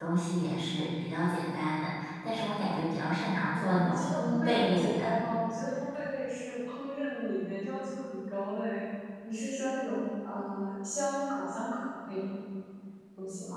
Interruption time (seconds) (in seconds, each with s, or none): 3.5 s